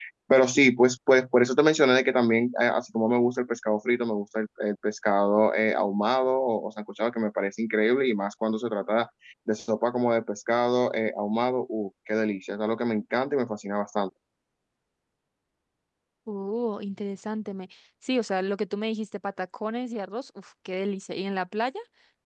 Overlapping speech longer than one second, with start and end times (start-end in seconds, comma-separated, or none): none